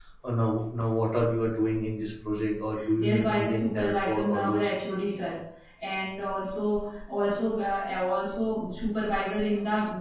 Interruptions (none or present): present